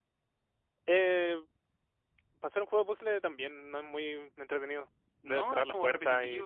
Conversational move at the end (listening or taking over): taking over